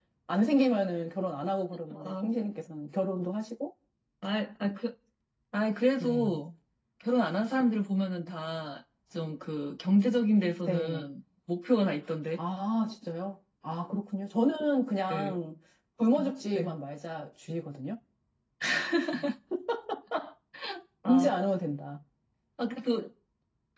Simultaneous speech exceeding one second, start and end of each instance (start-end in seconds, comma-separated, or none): none